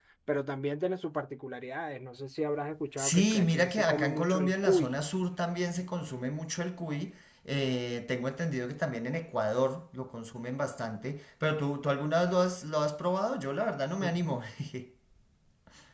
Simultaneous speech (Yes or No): Yes